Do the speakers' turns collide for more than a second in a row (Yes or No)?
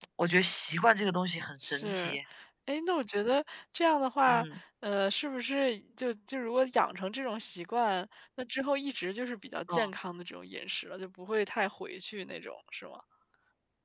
No